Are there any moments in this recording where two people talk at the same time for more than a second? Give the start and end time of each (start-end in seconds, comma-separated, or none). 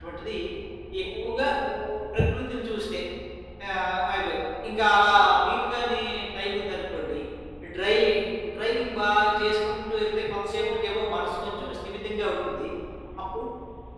10.5-11.8